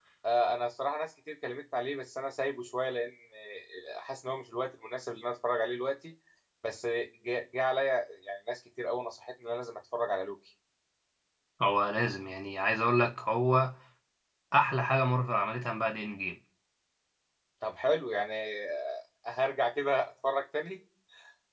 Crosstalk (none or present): none